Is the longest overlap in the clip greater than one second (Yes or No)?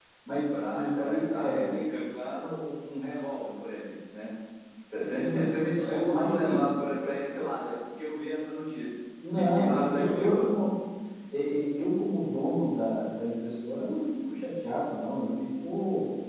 Yes